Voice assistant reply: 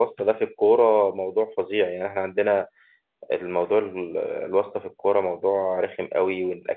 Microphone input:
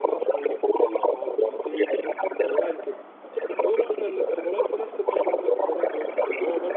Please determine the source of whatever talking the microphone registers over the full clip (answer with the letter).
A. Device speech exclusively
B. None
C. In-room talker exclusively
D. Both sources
D